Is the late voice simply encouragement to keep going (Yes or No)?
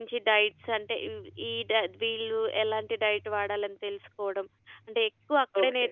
Yes